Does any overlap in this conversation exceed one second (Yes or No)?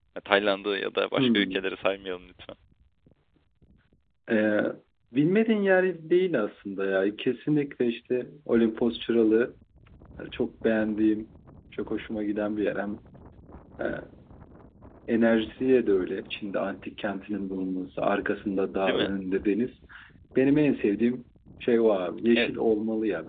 No